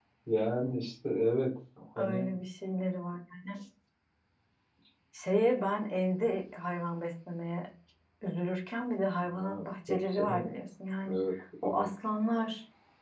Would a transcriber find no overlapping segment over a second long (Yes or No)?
No